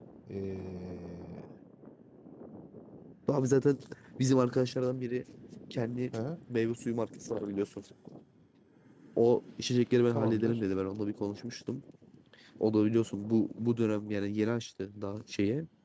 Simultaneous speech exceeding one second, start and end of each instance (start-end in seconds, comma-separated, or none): none